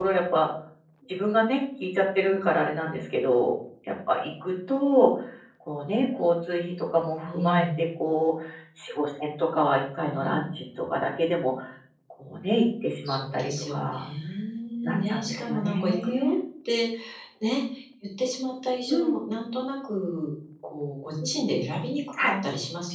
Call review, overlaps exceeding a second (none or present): present